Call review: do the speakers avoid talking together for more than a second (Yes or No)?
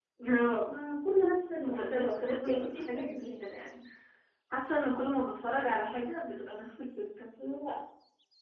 No